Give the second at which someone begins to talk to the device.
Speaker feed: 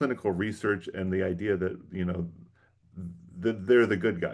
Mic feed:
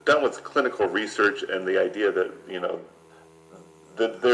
none

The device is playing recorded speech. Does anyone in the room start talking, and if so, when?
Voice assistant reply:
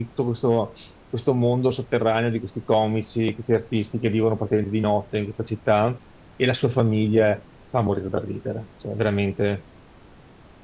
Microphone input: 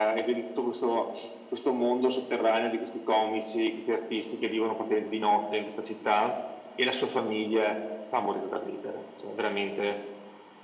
none

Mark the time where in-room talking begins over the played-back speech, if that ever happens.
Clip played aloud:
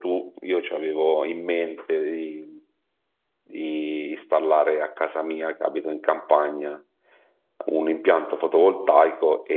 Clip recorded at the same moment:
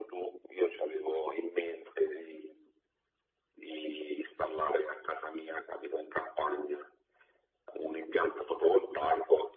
none

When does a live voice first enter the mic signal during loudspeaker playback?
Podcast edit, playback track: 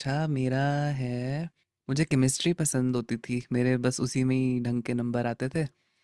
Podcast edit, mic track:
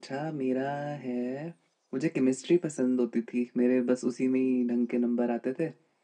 none

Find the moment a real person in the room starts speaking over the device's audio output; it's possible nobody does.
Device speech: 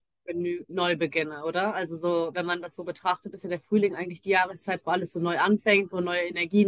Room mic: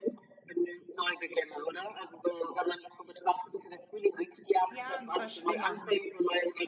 4.7 s

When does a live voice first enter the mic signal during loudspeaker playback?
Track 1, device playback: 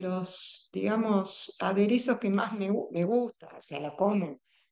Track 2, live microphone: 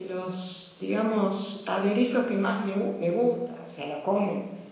none

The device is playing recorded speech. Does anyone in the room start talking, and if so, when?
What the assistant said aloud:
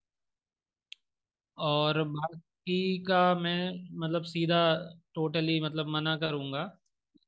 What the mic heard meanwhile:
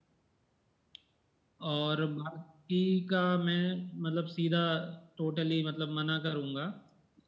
none

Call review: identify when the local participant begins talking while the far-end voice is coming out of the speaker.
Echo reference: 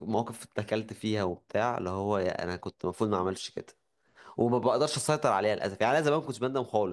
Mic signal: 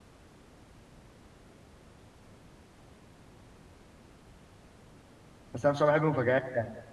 5.5 s

